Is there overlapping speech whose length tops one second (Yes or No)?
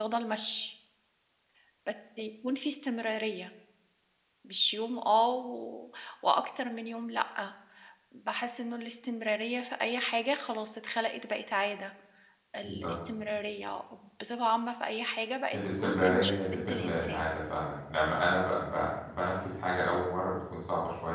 Yes